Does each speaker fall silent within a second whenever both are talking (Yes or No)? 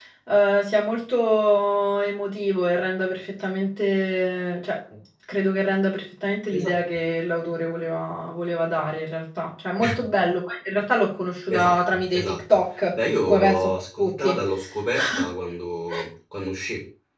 No